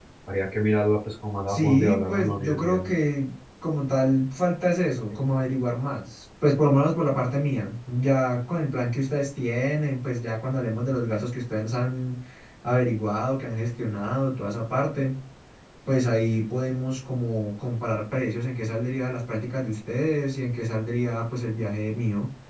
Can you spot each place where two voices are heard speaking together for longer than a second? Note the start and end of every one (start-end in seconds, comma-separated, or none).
1.5-2.8